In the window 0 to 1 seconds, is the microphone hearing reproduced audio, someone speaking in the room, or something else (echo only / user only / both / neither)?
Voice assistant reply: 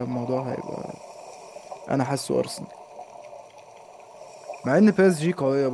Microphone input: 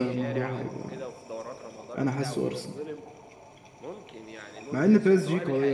both